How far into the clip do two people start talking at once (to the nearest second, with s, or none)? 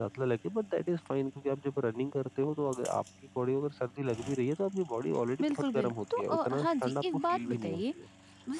5 s